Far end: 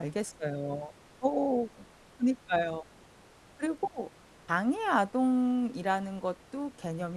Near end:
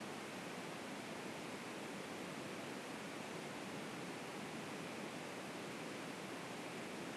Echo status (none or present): none